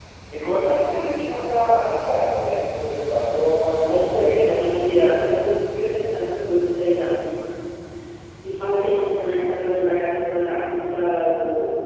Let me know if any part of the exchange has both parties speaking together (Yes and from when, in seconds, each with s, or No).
Yes, from 3.8 s